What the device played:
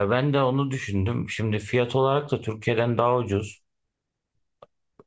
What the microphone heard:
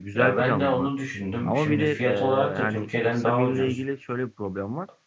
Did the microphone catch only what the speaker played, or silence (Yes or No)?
No